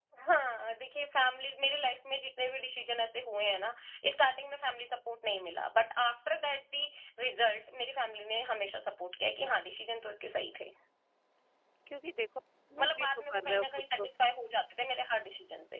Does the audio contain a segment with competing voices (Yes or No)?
Yes